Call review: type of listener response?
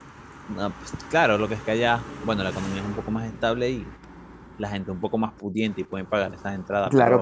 taking over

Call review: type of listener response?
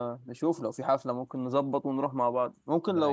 listening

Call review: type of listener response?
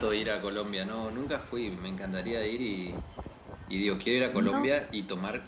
listening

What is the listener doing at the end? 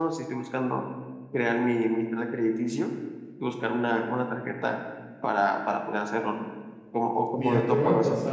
taking over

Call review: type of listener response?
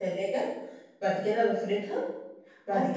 taking over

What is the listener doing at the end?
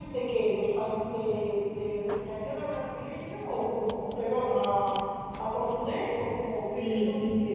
taking over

